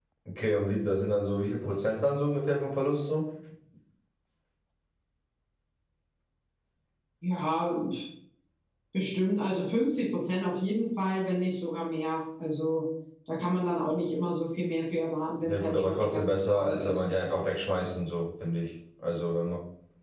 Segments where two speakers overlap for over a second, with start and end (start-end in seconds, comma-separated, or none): 15.4-17.0